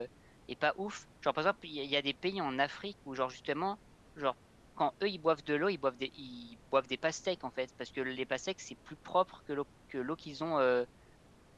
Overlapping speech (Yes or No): No